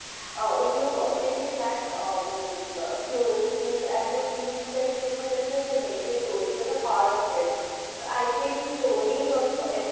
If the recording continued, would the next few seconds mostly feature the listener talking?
No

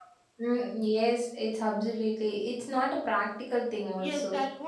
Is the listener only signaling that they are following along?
No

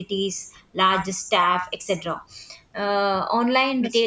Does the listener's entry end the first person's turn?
No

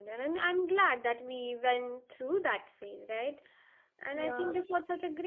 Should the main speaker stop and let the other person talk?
No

